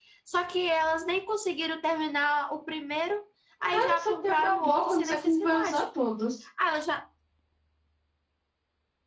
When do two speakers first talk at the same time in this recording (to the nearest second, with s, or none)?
4 s